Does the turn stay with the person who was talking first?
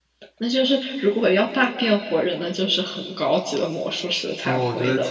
No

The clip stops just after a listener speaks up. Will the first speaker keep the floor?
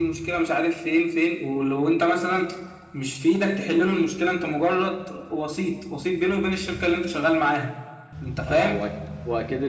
No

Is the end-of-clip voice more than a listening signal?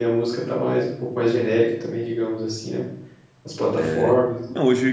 Yes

